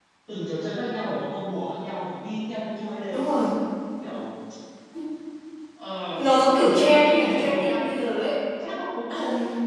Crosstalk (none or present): present